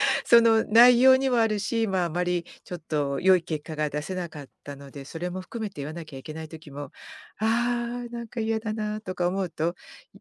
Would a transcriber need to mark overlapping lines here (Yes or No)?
No